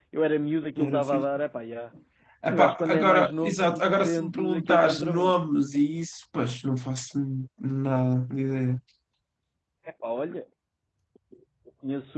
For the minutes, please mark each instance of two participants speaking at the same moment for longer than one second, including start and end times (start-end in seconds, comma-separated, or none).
2.5-5.3